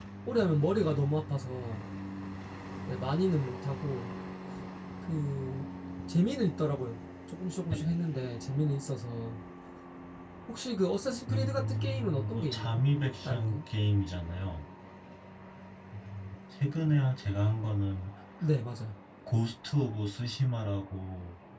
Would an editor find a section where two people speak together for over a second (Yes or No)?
Yes